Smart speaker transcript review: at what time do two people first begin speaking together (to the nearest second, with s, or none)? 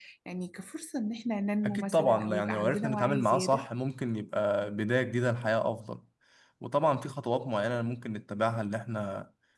2 s